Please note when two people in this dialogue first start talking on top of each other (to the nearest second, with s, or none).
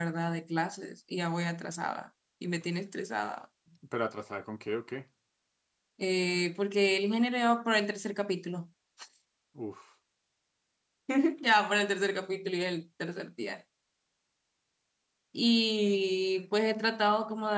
none